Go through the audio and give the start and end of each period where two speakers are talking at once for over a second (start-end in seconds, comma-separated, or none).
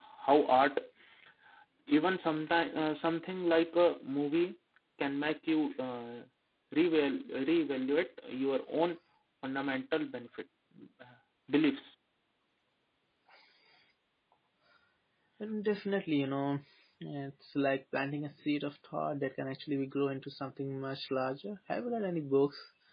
none